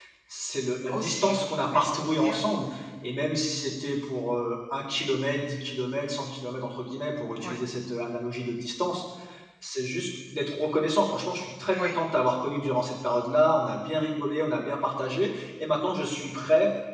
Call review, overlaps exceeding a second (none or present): present